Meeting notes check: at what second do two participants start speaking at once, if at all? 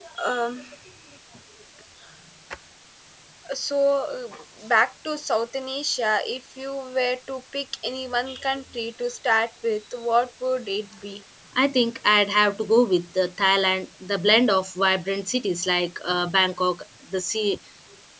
none

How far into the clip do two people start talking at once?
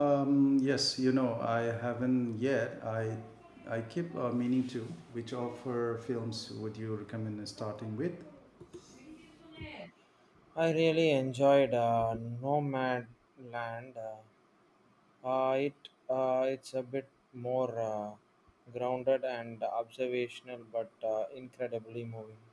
none

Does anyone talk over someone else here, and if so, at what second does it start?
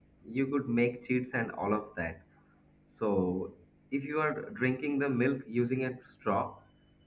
none

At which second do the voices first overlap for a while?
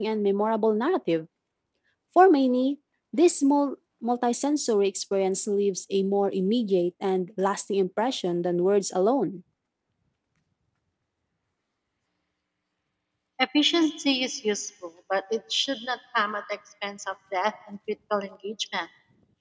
none

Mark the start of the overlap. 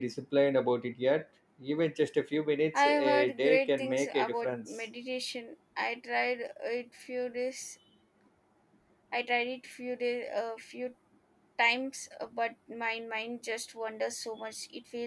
2.7 s

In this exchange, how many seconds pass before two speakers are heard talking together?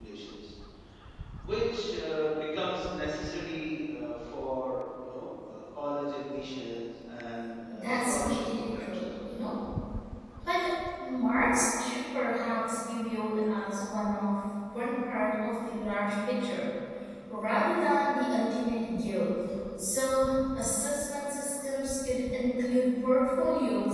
7.7 s

